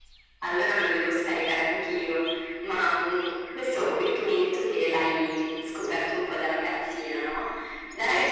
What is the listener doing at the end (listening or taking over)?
listening